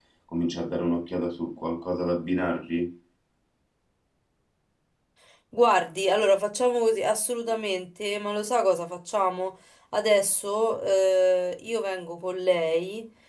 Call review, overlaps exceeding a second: none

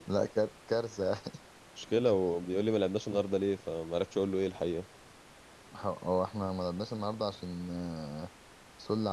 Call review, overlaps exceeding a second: none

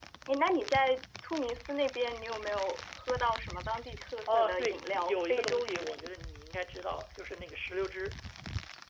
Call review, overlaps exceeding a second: present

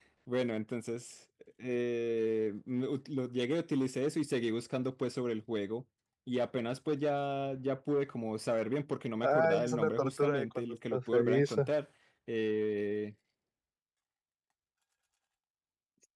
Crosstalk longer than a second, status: present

